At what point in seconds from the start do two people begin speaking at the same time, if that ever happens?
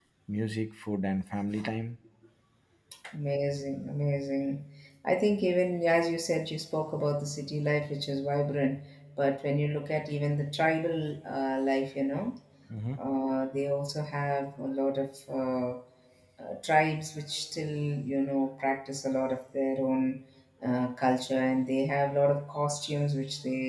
none

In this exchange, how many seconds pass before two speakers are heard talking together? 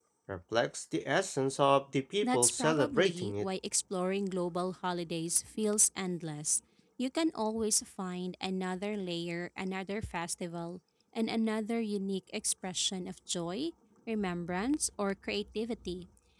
2.2 s

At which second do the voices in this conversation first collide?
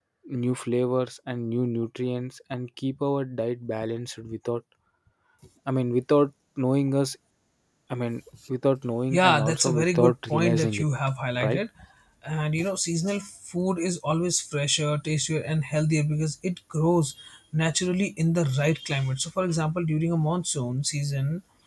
9.1 s

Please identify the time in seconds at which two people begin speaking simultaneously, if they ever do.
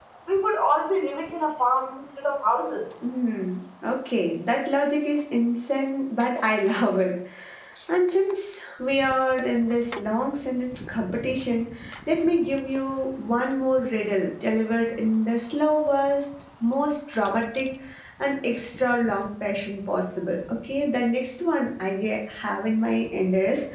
none

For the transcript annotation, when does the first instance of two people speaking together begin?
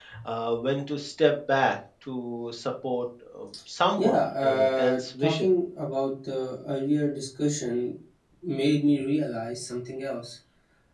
4.0 s

